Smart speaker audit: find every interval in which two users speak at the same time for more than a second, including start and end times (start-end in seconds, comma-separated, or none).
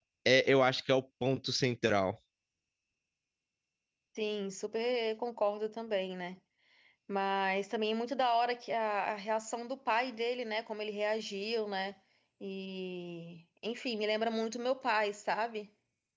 none